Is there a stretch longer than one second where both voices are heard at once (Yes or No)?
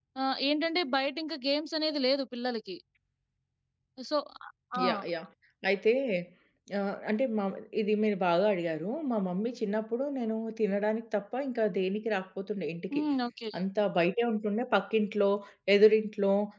No